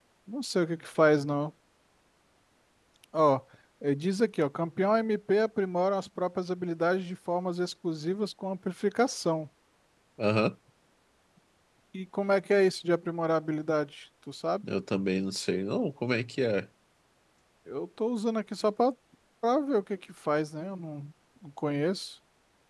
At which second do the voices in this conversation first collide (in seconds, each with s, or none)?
none